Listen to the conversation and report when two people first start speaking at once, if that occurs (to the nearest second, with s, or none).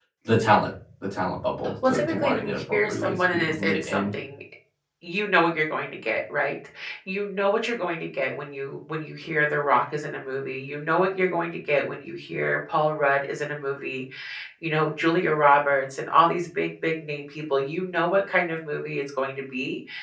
2 s